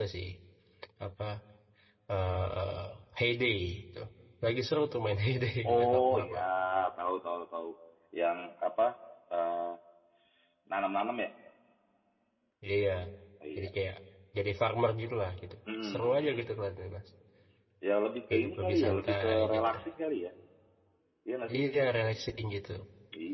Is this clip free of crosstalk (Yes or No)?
No